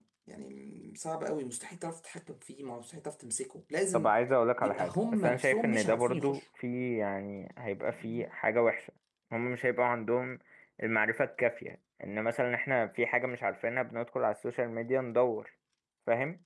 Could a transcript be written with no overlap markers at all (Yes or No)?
No